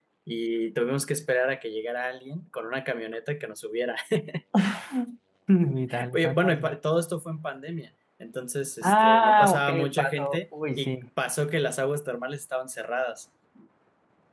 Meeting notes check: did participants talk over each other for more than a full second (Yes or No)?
Yes